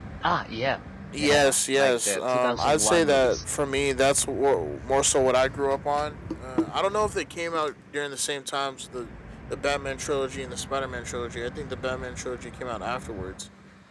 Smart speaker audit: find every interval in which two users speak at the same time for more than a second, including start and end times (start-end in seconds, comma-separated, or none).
1.2-3.4